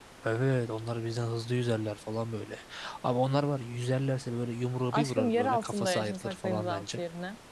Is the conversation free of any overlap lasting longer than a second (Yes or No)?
No